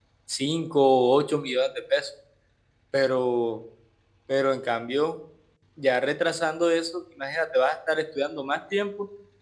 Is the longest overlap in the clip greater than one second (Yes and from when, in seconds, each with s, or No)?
No